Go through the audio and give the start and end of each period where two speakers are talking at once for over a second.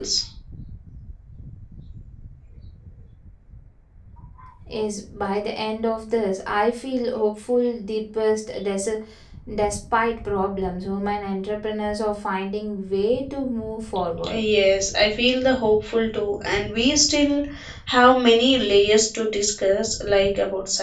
none

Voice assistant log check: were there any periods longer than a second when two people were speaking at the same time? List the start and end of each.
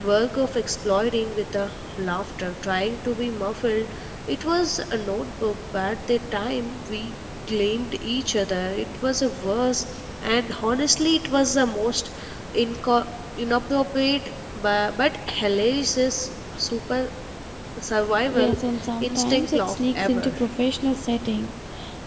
19.0-20.4

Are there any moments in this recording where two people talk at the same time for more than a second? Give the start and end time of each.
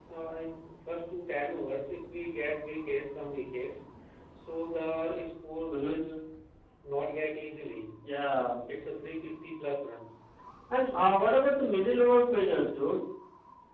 none

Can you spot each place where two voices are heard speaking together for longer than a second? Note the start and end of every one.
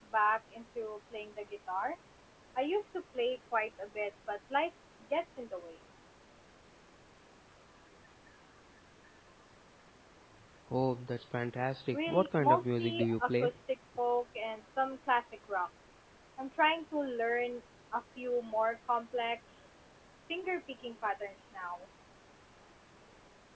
11.9-13.5

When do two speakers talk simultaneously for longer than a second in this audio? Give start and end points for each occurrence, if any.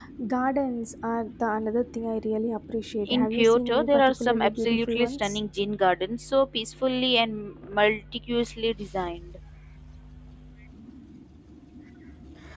3.0-5.4

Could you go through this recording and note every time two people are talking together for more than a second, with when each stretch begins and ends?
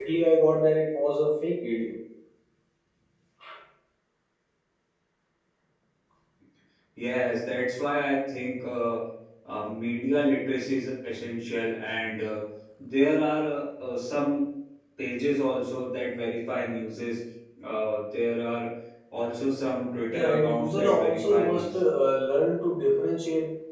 20.1-21.7

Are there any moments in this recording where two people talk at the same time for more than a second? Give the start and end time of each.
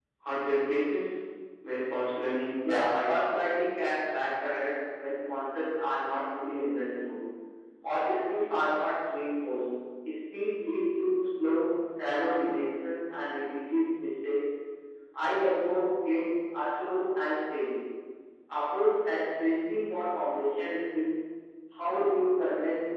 none

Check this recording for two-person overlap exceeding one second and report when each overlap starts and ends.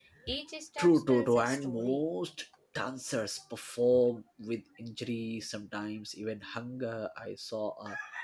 0.8-2.0

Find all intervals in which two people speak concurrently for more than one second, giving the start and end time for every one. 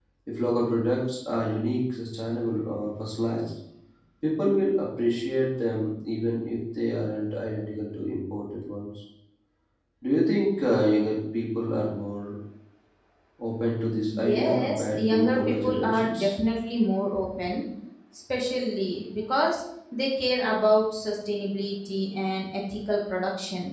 14.2-16.3

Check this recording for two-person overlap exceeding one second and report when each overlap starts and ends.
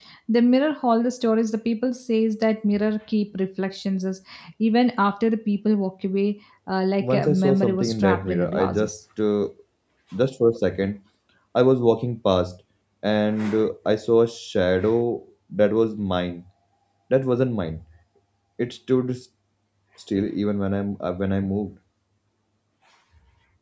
7.0-9.0

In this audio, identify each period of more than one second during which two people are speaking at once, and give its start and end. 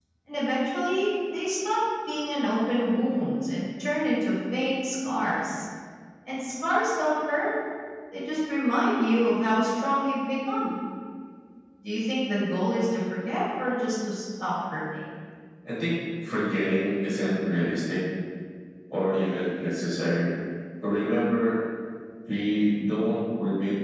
none

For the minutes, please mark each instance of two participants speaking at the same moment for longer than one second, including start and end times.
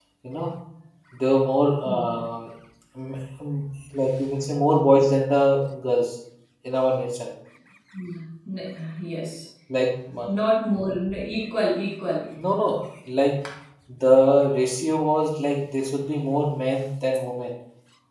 none

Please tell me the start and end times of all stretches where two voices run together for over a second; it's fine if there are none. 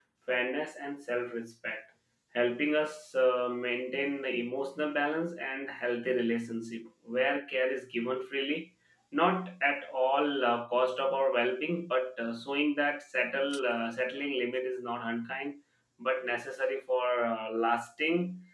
none

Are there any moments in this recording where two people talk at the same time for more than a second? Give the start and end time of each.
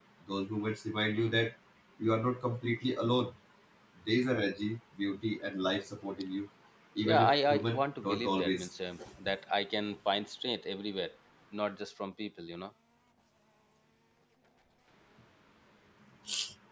7.0-8.7

